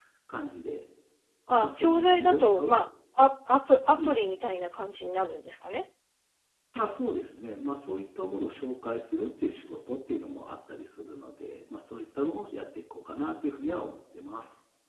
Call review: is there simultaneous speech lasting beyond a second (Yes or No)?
Yes